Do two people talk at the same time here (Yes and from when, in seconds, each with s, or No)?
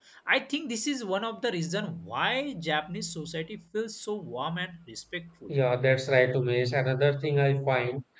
No